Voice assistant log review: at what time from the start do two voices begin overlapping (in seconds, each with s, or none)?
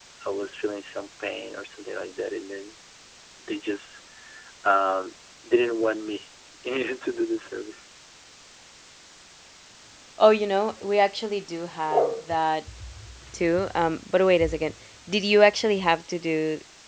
none